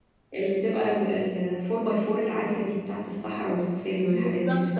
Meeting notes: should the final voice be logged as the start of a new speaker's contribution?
Yes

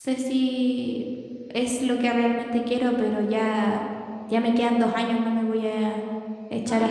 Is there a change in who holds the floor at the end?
Yes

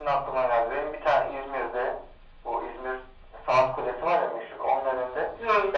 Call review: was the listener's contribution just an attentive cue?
Yes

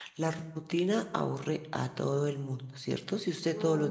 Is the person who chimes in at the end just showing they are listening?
Yes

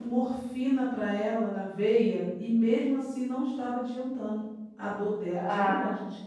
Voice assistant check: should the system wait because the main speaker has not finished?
No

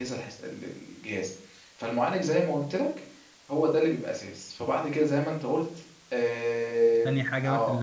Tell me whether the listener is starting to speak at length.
Yes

